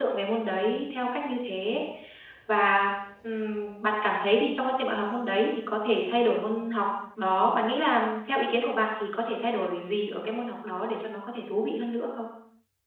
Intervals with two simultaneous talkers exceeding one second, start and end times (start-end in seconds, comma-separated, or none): none